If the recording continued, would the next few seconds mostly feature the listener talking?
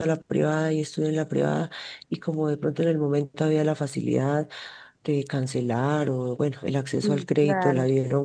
No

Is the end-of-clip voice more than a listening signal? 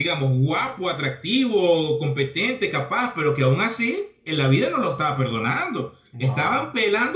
No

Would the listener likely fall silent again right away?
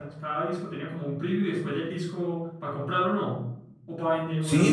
No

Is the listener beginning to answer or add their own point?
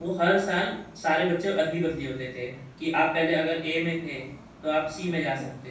No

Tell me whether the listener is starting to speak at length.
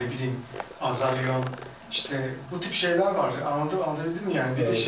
No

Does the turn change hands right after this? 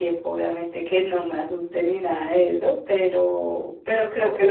No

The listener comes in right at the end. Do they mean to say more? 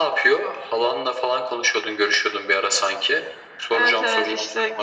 Yes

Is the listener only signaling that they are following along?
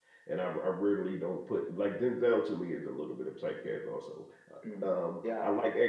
Yes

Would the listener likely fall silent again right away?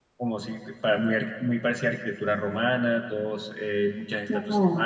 Yes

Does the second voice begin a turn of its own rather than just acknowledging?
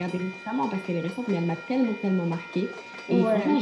No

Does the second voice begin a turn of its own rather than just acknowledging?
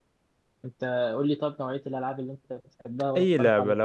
Yes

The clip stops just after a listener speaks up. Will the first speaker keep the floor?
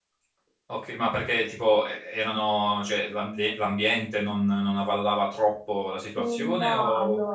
No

